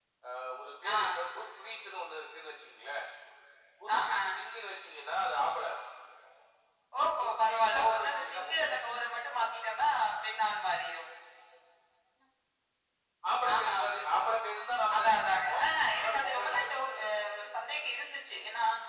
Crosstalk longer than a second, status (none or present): present